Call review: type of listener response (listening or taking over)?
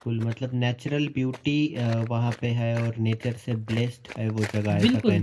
taking over